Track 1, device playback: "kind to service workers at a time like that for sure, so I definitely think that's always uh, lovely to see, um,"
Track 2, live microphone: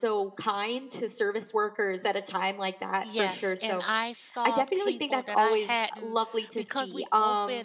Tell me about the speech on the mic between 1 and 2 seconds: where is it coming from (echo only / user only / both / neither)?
echo only